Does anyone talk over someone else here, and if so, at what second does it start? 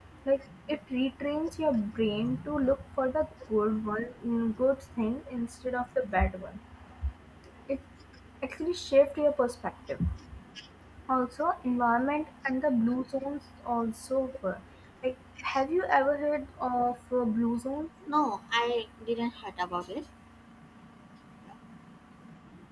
none

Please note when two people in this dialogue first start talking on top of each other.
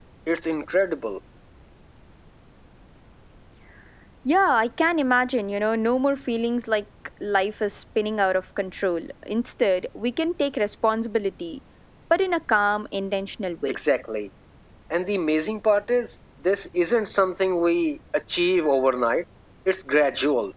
none

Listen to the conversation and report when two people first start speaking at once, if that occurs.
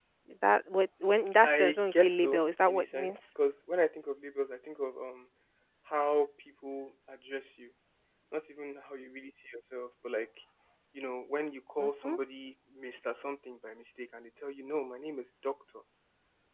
1.4 s

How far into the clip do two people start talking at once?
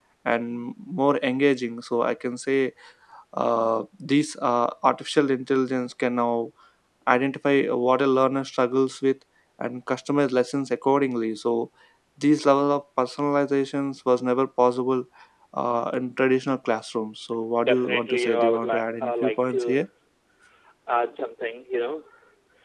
17.6 s

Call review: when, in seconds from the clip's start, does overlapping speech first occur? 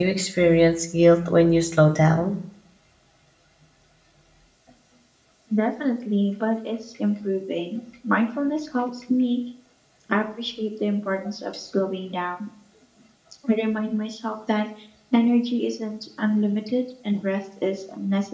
none

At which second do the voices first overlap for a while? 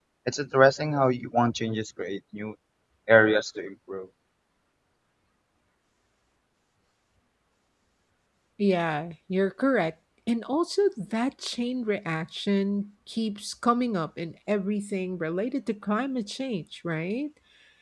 none

